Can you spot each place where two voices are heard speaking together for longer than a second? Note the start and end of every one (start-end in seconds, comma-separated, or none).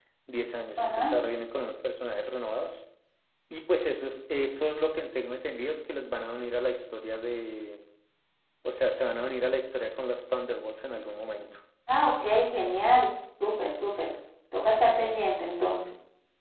none